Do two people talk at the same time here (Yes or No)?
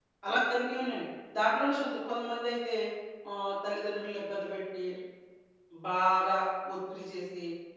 No